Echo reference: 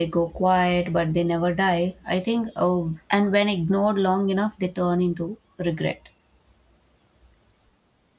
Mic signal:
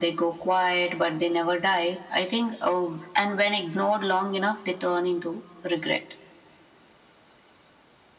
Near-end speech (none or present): none